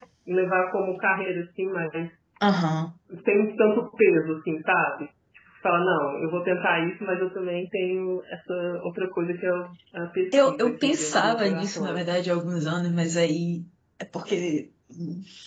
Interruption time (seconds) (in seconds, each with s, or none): 10.3 s